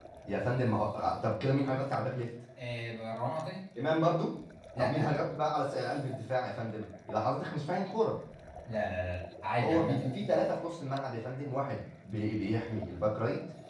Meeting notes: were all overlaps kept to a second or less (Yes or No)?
Yes